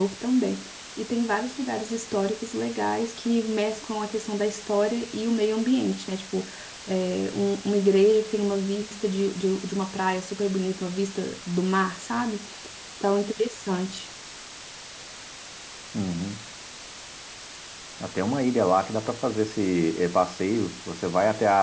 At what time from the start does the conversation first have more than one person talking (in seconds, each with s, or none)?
none